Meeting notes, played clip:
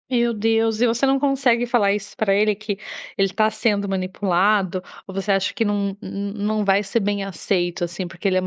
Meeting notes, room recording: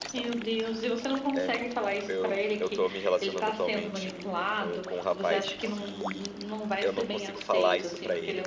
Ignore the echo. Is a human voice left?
Yes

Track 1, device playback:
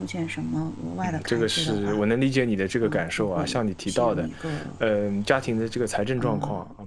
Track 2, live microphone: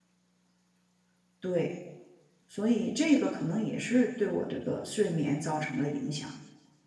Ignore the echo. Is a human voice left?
Yes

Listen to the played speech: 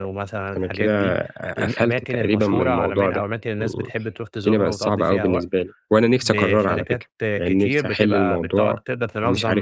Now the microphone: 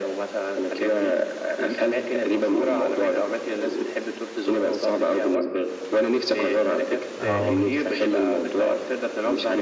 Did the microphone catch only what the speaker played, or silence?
No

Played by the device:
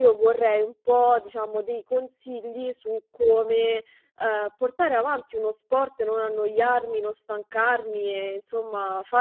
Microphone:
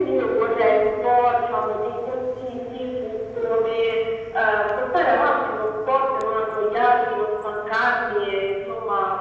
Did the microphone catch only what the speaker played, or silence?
Yes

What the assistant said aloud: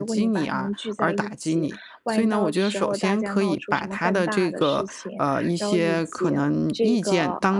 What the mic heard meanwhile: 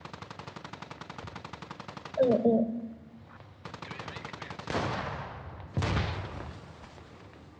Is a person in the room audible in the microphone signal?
Yes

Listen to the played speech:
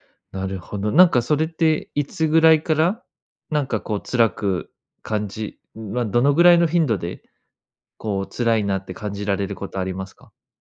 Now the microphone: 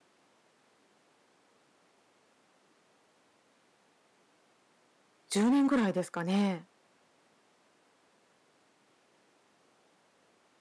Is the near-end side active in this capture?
Yes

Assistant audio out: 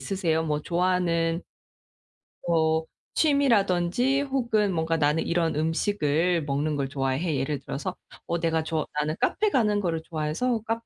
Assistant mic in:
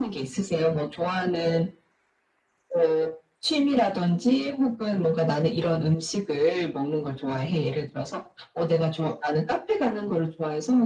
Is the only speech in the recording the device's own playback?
Yes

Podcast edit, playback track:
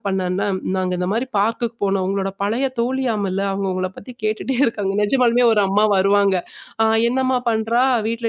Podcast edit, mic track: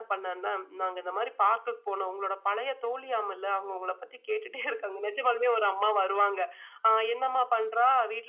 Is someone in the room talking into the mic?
No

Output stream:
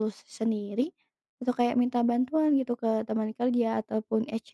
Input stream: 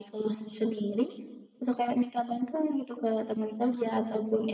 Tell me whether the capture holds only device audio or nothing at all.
Yes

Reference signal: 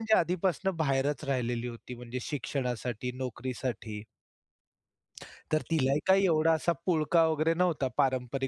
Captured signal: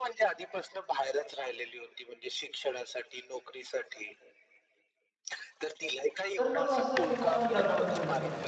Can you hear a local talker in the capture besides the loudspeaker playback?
Yes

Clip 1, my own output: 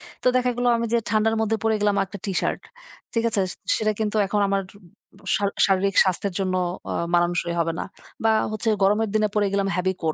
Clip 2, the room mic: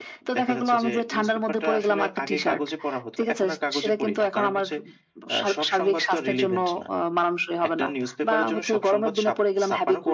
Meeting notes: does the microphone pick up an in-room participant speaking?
Yes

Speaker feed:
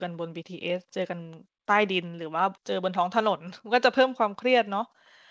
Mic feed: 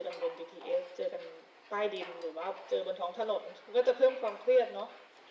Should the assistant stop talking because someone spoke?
No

